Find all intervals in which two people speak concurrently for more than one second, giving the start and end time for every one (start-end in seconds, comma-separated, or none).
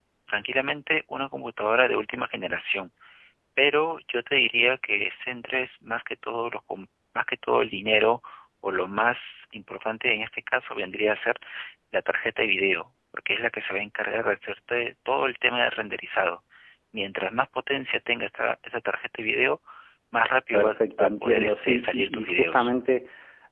20.5-22.7